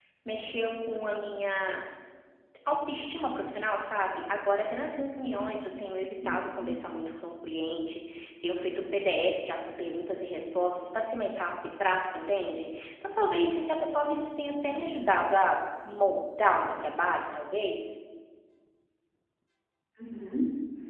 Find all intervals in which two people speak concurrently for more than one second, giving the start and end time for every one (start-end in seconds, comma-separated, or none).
none